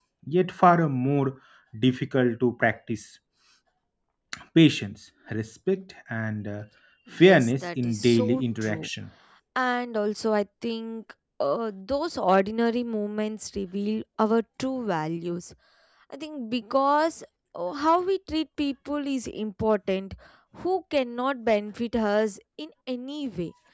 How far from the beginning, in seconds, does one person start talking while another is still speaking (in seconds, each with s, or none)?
7.2 s